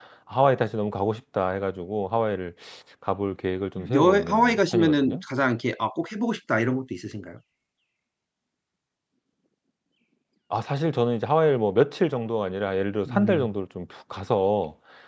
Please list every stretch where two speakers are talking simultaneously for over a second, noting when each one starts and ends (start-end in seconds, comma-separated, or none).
3.9-5.2